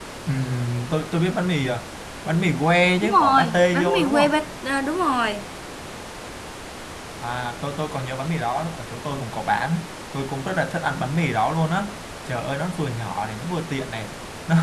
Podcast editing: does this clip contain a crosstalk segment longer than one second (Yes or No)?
Yes